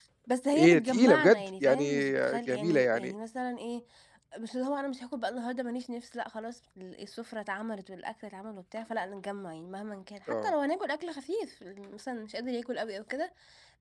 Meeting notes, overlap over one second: present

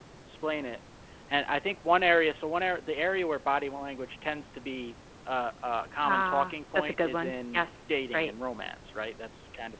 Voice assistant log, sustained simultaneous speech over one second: present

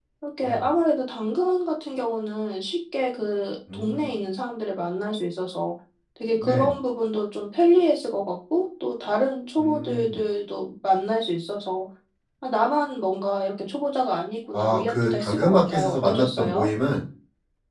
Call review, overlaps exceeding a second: present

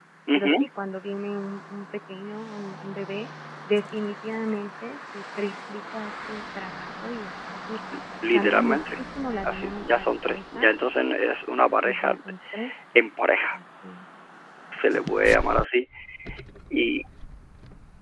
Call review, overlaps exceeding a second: present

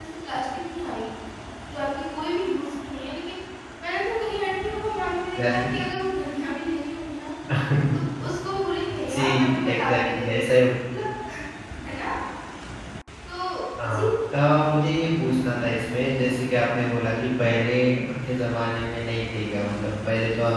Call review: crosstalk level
present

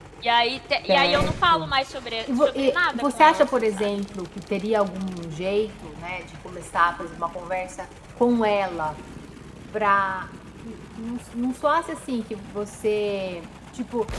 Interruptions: present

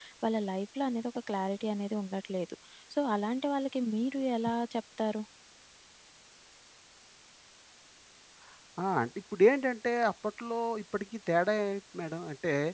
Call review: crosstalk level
none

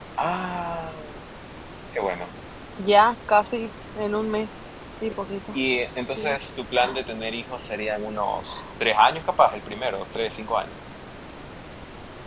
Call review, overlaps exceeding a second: none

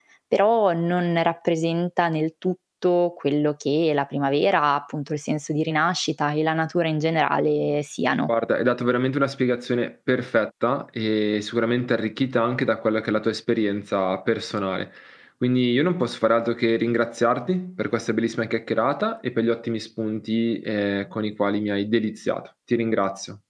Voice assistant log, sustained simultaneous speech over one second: none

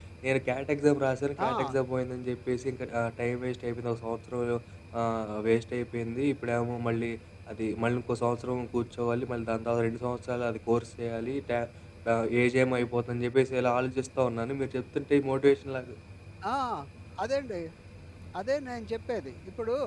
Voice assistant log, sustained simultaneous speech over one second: none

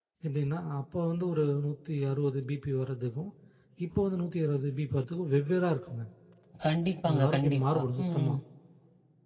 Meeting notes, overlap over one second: present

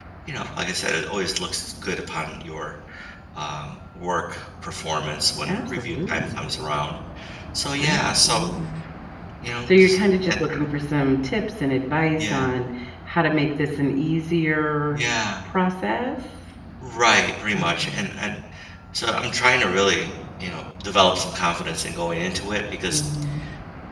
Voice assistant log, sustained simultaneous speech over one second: present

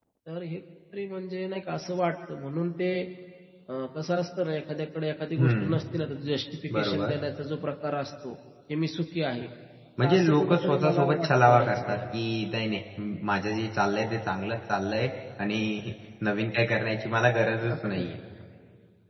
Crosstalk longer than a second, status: present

